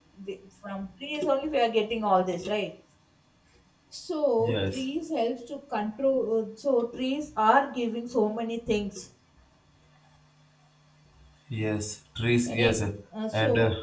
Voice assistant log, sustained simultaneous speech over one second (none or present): none